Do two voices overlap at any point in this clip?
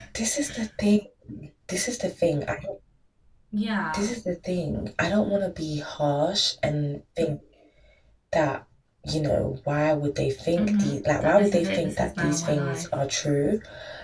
Yes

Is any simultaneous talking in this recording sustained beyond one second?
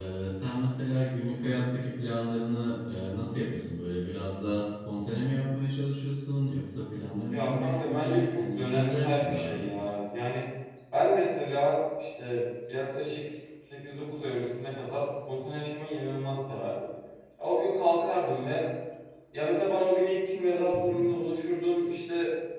Yes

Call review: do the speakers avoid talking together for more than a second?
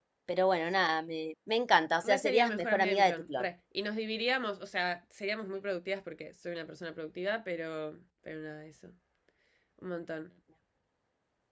No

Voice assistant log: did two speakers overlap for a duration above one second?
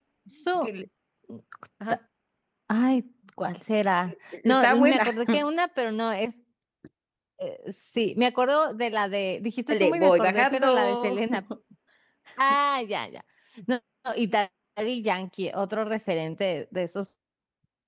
Yes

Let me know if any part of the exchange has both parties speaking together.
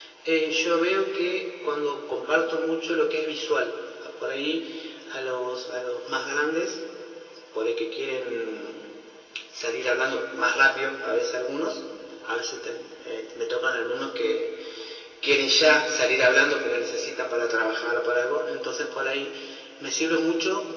No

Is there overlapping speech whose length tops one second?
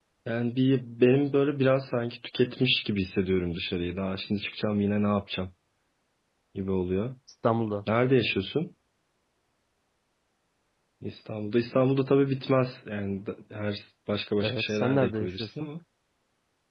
Yes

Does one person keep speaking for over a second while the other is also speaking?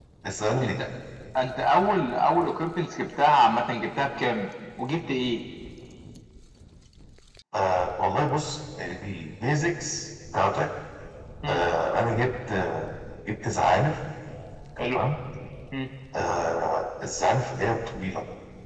No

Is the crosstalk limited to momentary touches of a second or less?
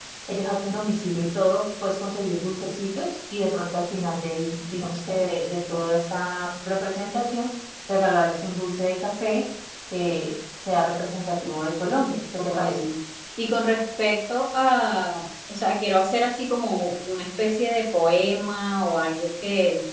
Yes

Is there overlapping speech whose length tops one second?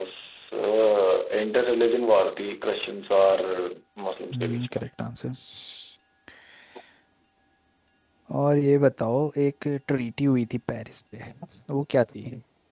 No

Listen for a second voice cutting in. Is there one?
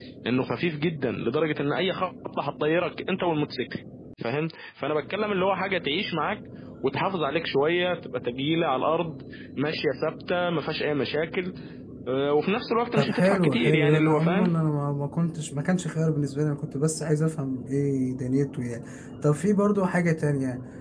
Yes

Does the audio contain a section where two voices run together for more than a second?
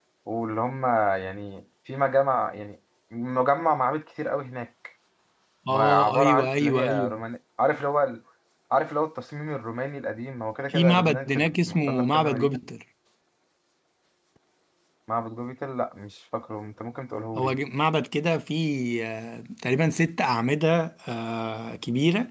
Yes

